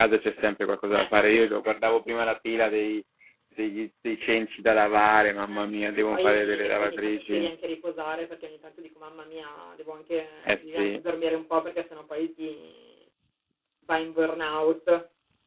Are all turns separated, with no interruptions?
No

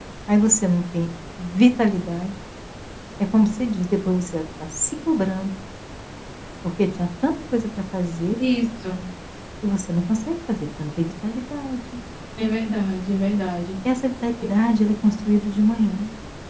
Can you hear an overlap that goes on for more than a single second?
No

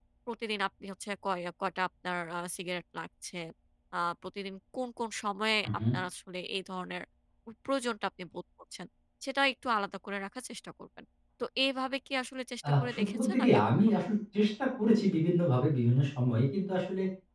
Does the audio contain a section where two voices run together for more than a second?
Yes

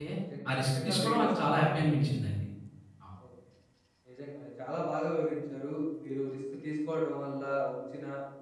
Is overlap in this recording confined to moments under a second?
No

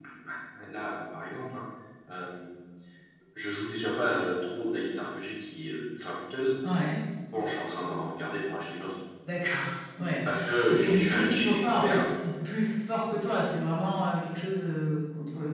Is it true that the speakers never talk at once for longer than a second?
No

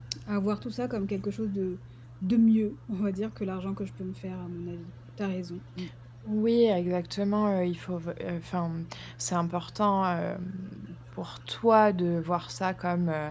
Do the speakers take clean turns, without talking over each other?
Yes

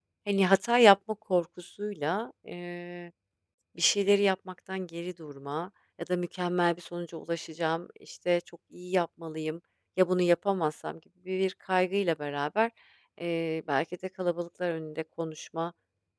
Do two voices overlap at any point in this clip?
No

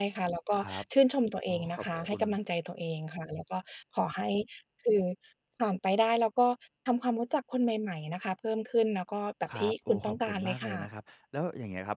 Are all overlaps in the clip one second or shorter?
No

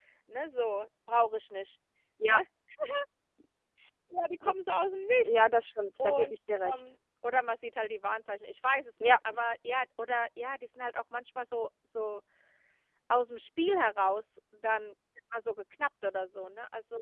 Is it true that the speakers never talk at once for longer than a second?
Yes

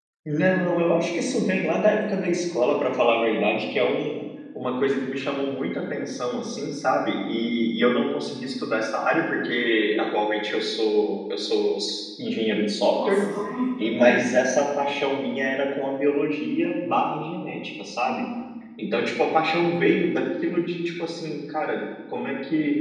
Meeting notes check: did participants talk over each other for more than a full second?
No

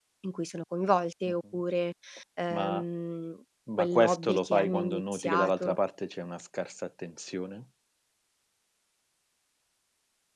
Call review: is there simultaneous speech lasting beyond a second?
Yes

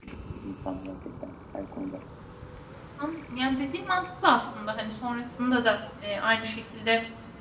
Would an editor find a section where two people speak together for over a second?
No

